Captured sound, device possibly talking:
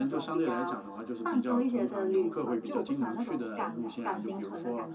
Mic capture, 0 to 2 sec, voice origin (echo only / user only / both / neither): echo only